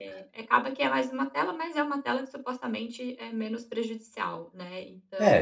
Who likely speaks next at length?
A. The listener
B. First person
A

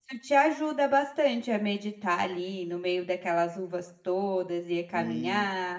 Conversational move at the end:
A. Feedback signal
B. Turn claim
B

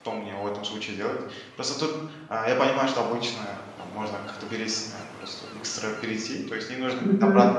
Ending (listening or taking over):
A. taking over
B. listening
B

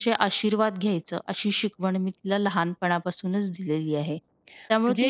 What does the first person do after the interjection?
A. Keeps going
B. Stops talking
A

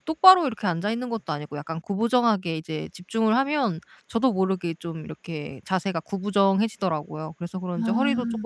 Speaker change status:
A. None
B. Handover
A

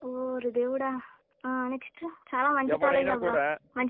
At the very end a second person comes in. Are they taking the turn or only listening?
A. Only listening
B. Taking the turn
A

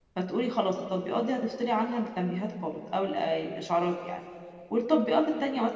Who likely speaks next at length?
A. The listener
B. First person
B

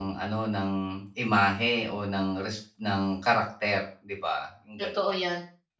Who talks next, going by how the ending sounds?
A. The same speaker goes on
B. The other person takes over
B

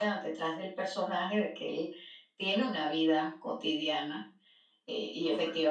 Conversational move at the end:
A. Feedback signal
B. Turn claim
A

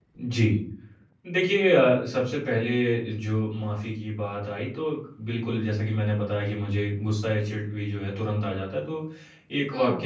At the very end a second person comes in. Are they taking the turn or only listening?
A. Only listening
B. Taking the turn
A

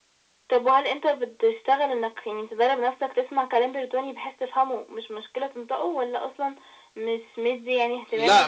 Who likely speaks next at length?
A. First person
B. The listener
B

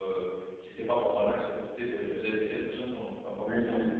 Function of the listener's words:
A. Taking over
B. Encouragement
A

